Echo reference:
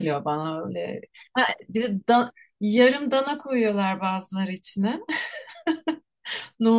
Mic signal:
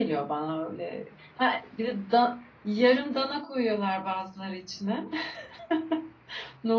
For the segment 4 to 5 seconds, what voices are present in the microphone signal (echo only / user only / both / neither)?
echo only